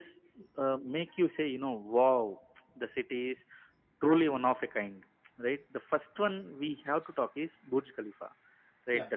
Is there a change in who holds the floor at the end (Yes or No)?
No